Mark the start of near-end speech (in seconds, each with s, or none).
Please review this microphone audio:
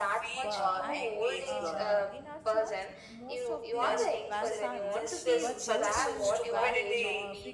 0.4 s